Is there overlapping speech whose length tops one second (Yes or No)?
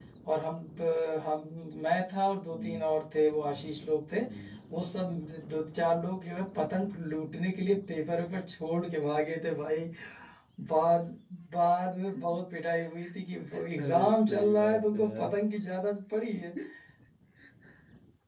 Yes